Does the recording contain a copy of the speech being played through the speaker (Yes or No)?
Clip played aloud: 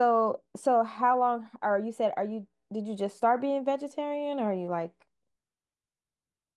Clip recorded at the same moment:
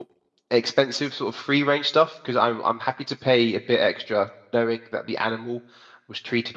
No